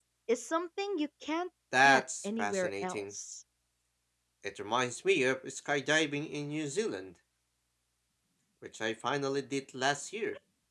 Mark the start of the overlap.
1.7 s

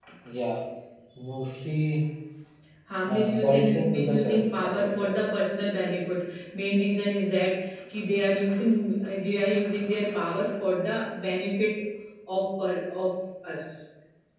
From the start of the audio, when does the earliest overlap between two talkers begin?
3.1 s

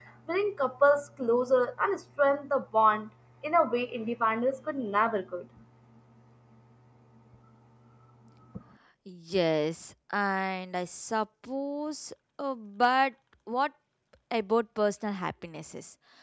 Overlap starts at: none

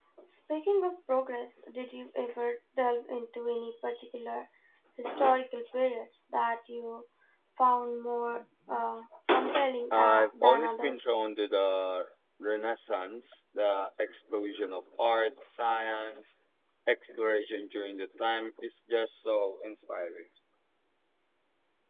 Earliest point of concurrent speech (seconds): 9.9 s

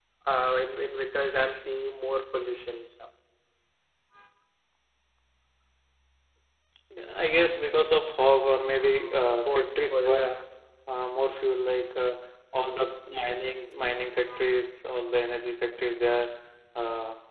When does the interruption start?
8.8 s

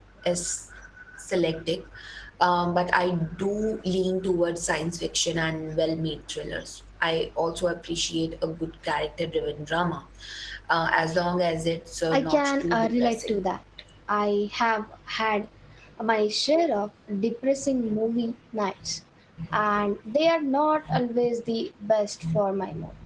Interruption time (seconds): 12.1 s

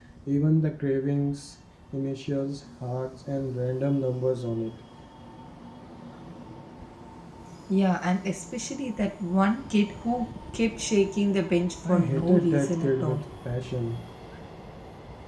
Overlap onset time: 11.8 s

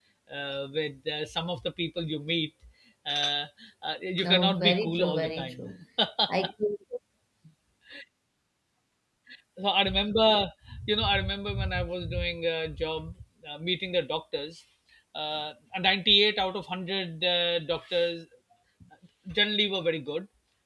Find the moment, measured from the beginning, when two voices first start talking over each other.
4.2 s

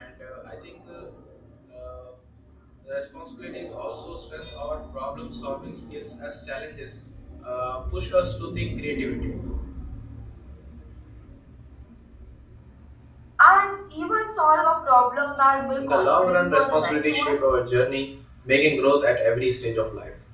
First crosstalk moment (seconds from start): 15.8 s

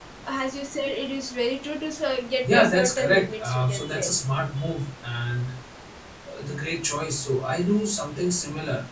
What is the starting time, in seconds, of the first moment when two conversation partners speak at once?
2.4 s

